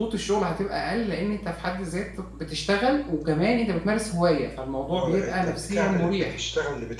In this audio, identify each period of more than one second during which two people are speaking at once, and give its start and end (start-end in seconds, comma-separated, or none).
4.9-6.4